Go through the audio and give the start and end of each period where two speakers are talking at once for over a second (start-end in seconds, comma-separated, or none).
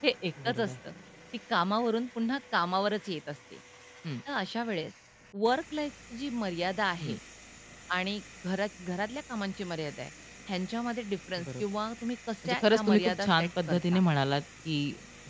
12.5-14.0